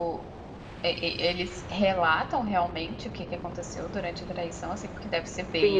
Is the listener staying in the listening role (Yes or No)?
No